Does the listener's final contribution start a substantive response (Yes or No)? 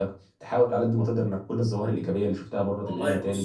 Yes